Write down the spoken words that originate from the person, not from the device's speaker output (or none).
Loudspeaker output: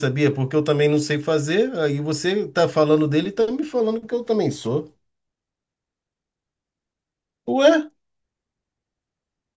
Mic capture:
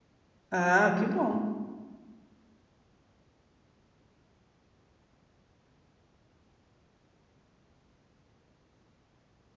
ah, que bom.